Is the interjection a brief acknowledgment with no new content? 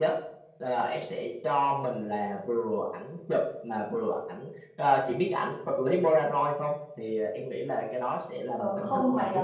No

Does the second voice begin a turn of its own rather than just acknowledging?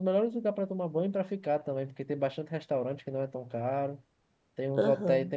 No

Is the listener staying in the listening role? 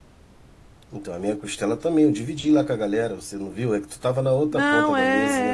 No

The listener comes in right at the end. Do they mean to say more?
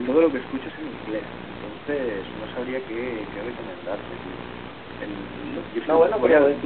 Yes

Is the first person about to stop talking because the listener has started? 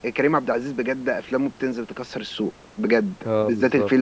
No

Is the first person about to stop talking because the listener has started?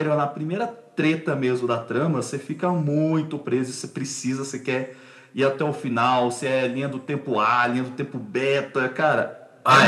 Yes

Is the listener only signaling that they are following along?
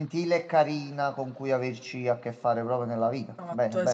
No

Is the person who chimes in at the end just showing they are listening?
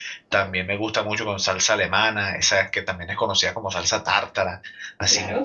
Yes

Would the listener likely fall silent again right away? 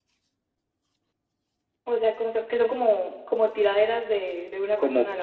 No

